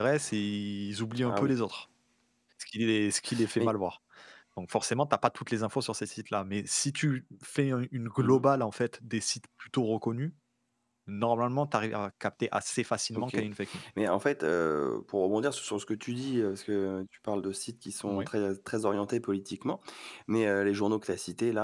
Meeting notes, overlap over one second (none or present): none